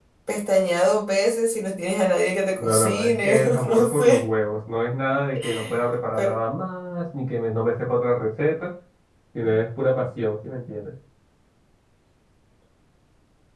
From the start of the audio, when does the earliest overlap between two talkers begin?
2.6 s

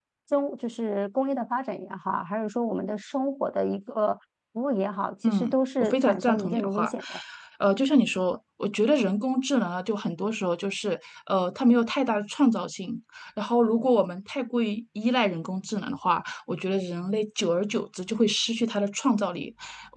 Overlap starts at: 5.2 s

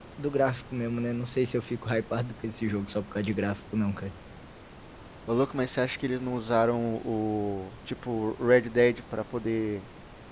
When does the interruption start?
none

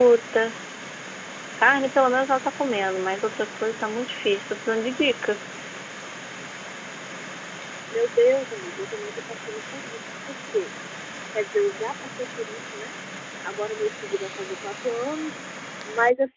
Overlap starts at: none

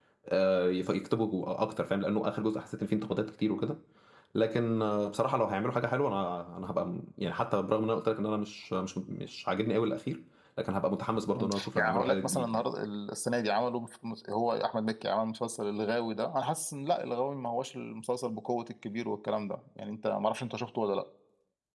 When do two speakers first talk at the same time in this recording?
11.4 s

